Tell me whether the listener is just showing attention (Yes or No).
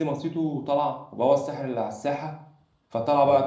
Yes